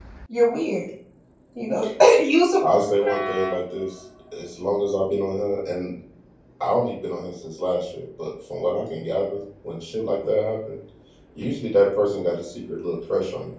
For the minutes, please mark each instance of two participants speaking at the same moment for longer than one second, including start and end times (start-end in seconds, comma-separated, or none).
none